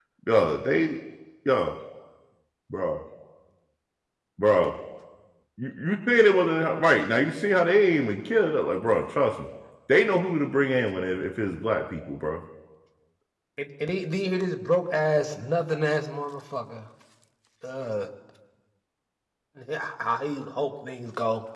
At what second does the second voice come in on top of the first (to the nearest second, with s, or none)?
none